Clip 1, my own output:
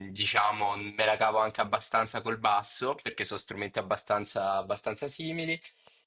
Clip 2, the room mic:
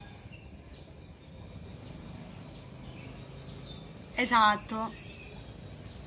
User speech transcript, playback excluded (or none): esatto.